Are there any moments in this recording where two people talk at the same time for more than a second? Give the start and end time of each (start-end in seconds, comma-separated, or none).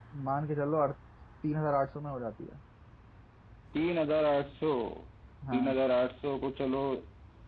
none